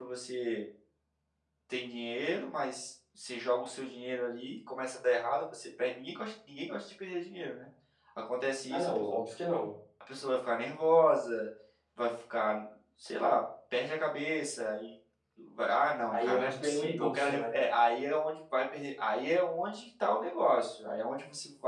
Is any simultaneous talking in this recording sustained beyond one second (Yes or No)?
Yes